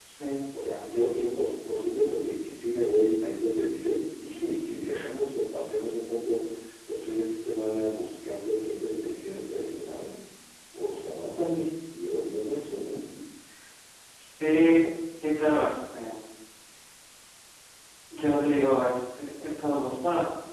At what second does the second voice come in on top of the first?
none

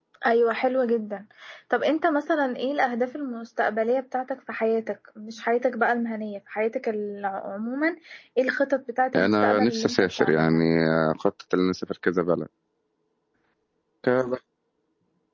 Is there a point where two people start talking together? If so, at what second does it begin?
9 s

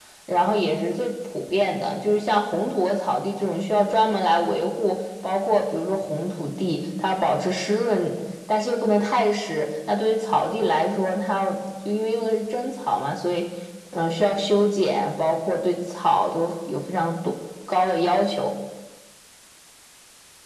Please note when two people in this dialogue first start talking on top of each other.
none

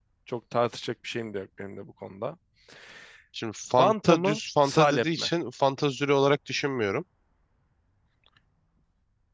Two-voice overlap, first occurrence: 4 s

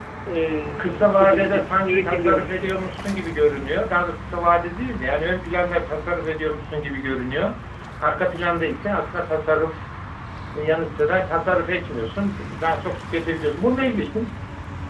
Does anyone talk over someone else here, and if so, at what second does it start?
1 s

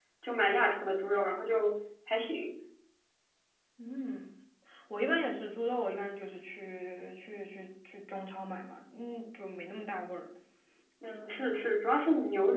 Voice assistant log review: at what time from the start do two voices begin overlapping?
none

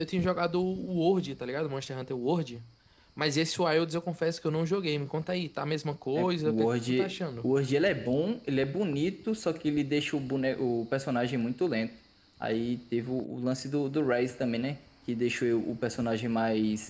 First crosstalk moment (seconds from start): 6 s

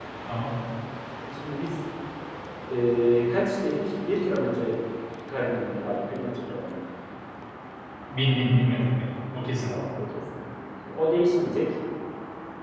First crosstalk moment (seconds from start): none

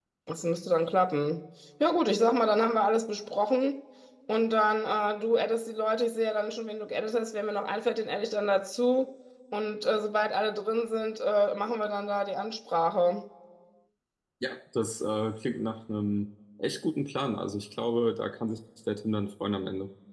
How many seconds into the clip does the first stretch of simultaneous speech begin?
none

